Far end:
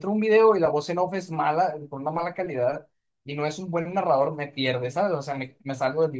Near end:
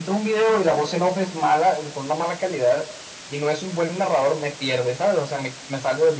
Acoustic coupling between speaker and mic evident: Yes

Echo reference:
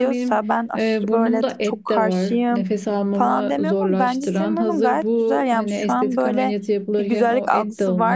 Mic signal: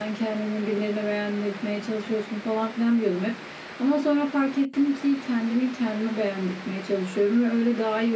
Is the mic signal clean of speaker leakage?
Yes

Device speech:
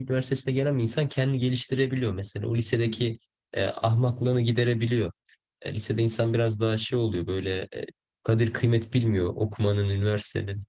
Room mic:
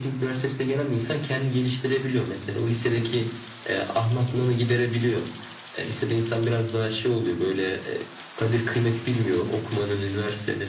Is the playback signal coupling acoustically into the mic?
Yes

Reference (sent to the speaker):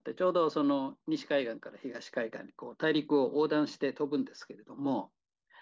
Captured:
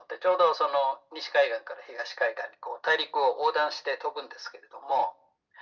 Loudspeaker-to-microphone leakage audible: Yes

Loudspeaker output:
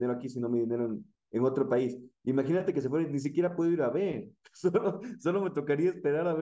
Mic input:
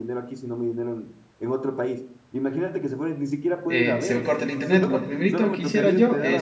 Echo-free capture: No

